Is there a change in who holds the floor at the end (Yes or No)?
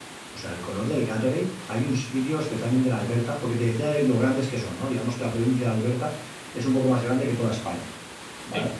No